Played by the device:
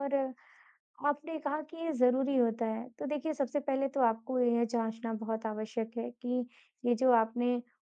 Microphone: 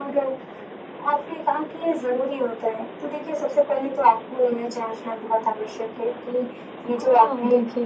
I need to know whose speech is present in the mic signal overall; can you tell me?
both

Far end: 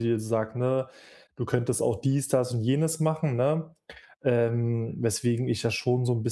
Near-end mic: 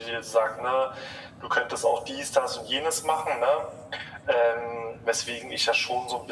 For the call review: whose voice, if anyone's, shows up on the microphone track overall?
echo only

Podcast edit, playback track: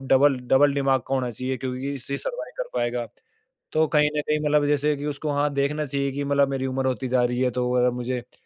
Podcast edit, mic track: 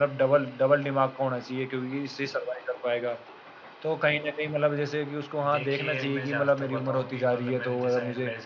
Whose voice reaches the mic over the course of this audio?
both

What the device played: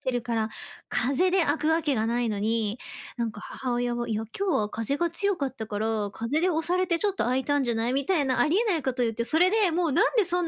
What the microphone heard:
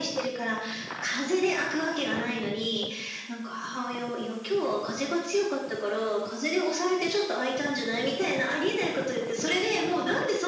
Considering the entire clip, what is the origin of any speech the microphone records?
echo only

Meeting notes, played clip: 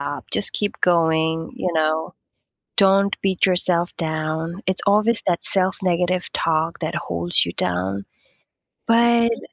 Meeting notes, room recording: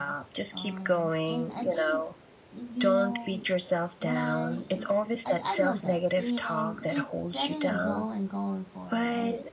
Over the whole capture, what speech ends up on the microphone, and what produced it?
both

